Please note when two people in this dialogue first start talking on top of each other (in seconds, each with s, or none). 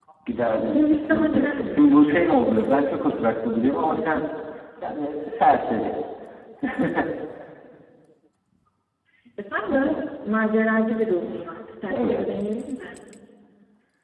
0.6 s